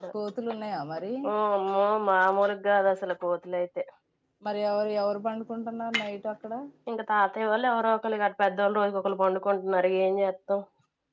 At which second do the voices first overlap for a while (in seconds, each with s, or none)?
none